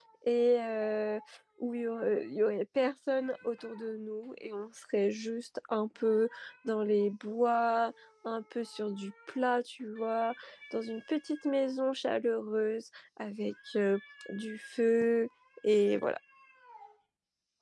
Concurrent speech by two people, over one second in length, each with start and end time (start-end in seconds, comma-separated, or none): none